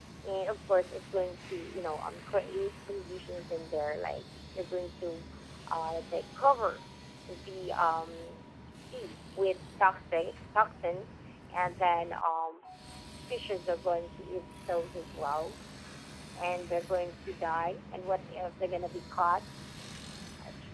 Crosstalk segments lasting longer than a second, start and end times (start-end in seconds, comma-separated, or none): none